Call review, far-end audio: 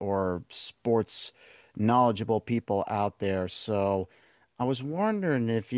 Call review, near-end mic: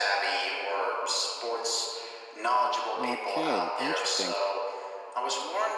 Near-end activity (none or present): present